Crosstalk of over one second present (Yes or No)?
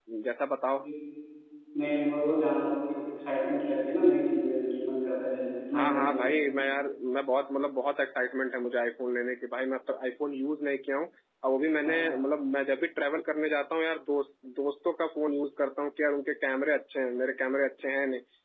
No